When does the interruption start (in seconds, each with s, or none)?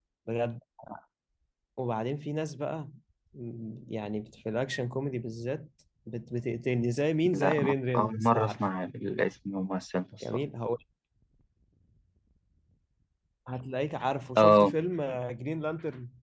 7.3 s